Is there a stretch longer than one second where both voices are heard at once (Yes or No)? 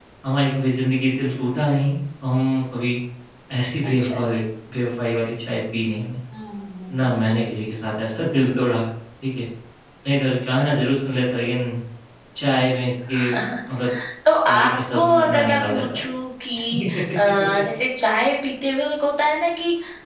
Yes